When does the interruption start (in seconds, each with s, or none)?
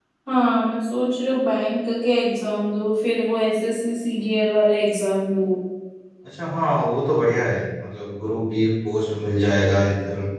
none